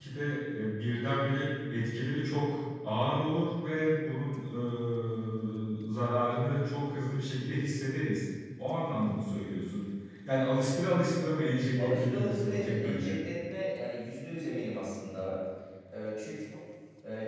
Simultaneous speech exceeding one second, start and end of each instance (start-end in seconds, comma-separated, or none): 11.8-13.2